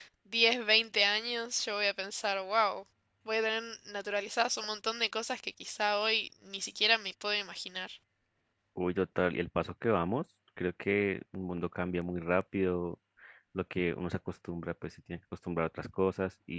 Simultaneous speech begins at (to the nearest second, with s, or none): none